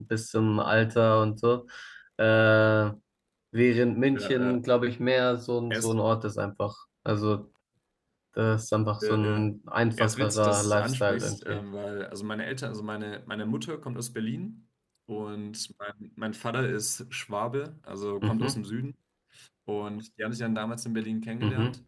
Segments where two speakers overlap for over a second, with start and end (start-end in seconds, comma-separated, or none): 9.9-11.6